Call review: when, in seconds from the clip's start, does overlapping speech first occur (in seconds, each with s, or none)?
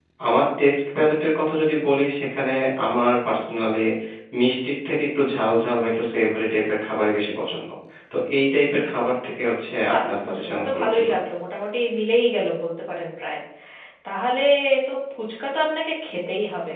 9.8 s